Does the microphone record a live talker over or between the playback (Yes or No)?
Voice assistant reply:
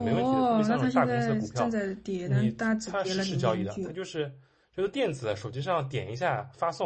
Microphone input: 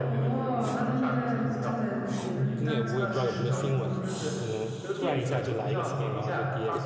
Yes